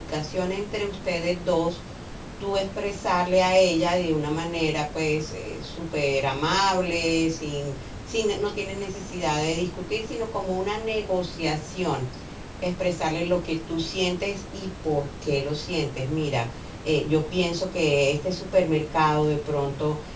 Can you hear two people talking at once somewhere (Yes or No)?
No